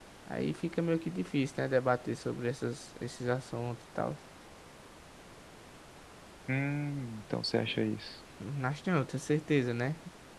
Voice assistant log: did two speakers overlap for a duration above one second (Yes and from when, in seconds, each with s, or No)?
No